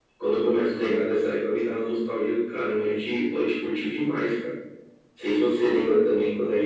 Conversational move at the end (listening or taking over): listening